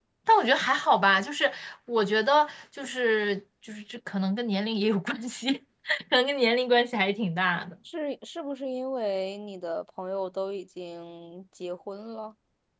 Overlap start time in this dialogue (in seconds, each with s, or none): none